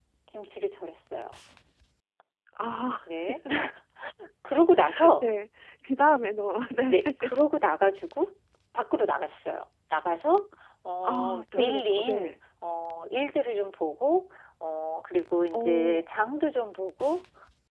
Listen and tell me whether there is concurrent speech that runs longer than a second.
Yes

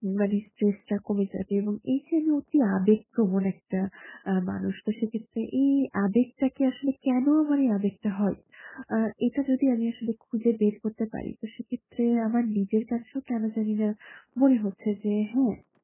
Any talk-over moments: No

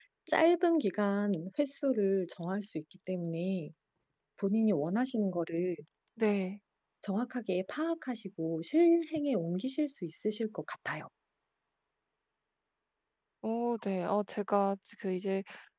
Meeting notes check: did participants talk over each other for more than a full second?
No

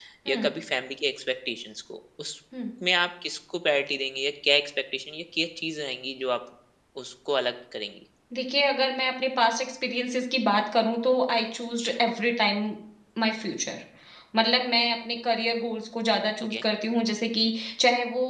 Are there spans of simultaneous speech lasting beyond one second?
No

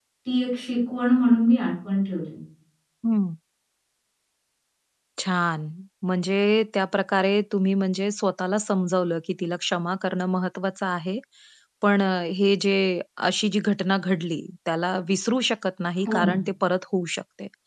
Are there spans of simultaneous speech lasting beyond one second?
No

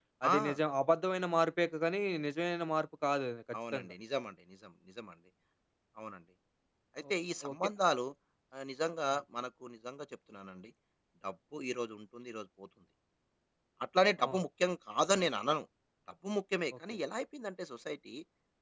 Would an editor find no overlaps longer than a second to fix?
Yes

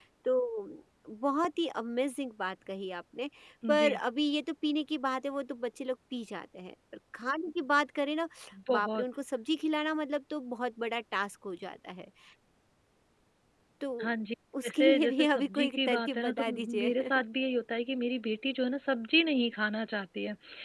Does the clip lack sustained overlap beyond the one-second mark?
No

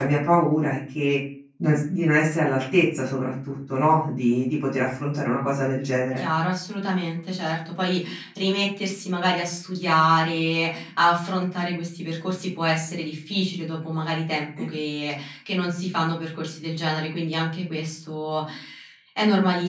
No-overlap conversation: Yes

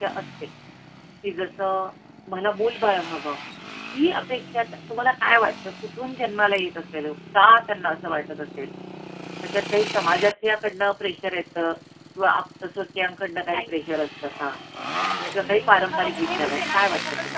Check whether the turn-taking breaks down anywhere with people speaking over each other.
Yes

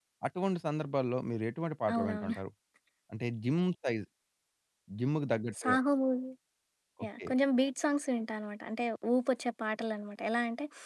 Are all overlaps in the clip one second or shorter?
Yes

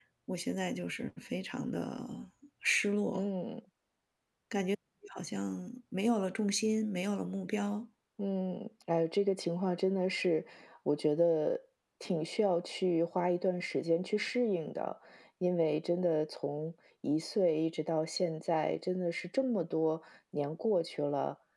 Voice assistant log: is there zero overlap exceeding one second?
Yes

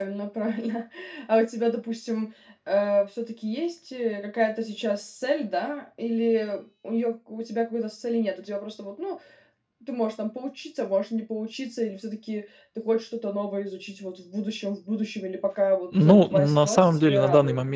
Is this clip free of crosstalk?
No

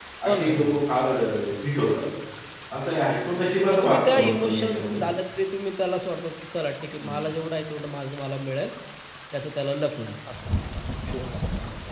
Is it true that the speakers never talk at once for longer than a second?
No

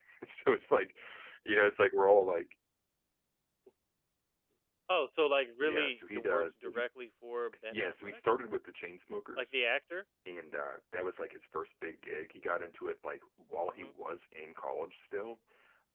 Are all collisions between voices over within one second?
No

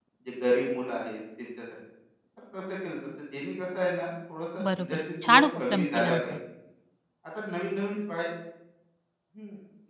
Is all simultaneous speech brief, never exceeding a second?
No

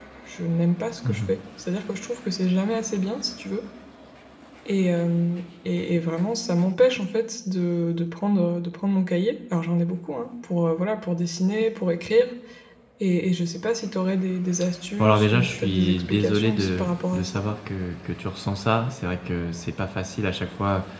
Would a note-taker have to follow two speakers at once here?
Yes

